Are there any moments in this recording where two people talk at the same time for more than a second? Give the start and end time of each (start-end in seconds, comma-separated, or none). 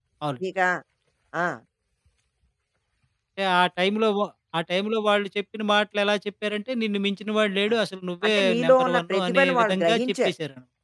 8.2-10.3